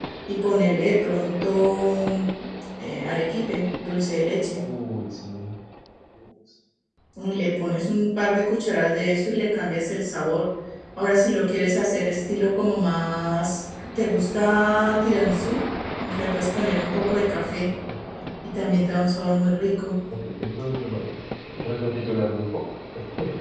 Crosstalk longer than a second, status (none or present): none